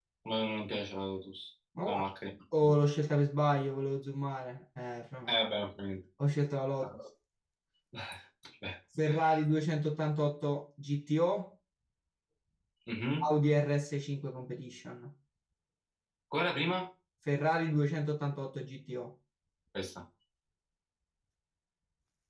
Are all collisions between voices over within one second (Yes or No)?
Yes